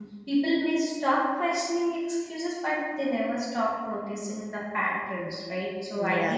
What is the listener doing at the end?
listening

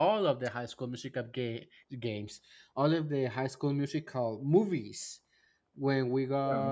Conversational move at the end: listening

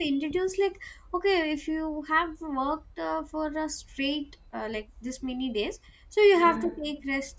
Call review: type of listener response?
listening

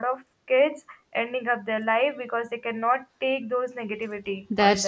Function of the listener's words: taking over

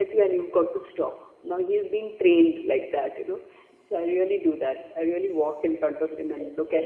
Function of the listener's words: taking over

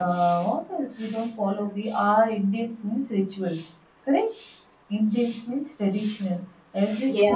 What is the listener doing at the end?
listening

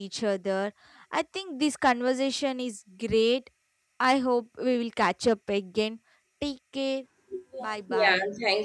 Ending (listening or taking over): taking over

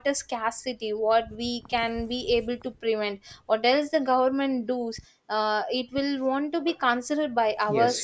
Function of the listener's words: taking over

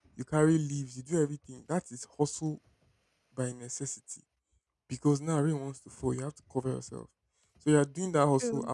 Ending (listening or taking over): listening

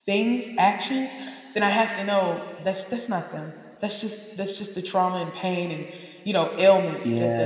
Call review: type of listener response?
taking over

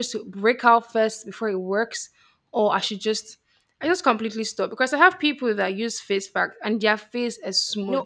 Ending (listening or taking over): listening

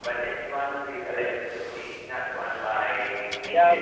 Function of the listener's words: taking over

